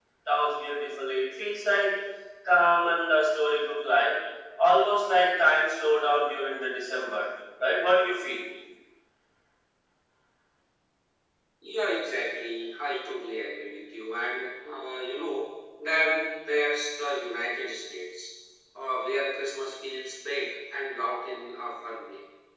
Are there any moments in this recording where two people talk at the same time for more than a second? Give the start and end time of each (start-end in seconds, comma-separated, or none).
none